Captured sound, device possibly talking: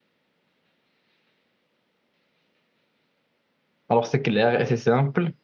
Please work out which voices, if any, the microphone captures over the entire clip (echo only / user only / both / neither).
user only